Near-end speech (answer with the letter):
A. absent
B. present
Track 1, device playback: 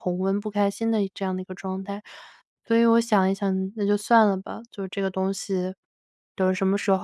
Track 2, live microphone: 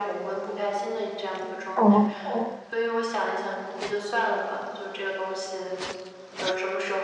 B